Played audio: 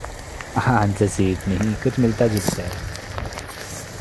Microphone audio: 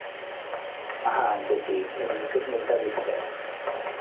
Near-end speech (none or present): none